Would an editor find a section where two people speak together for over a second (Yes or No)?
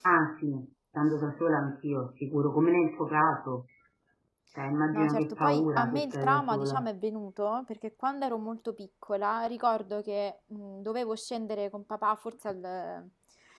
Yes